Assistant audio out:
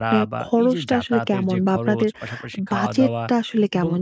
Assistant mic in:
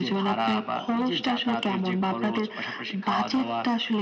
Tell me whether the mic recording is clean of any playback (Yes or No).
No